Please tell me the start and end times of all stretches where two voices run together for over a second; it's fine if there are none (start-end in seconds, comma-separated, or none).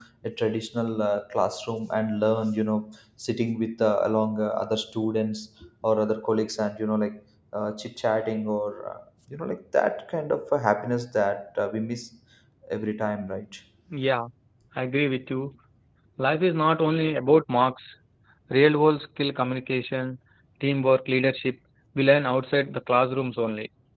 none